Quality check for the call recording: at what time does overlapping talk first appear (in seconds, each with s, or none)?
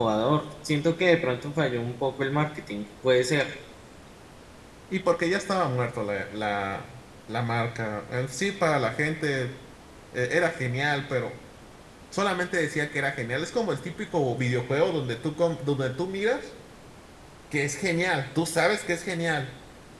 none